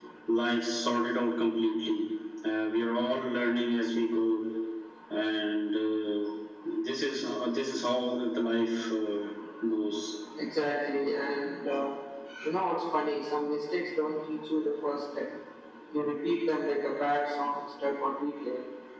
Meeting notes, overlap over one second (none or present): none